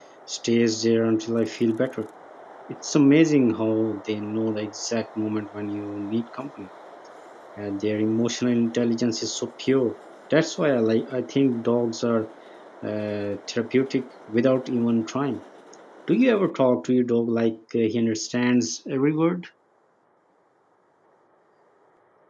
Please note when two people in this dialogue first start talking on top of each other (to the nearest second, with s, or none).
none